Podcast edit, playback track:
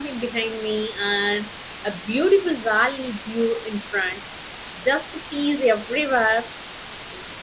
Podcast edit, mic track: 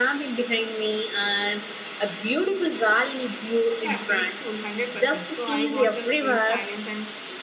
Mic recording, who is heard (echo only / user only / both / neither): both